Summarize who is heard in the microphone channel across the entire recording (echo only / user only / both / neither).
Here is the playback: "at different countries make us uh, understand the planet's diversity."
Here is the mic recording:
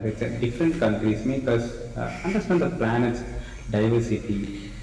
echo only